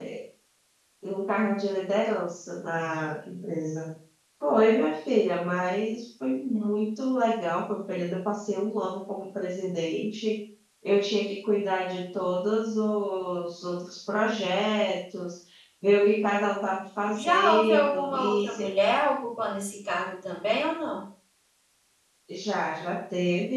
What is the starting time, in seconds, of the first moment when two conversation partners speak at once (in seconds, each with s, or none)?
17.1 s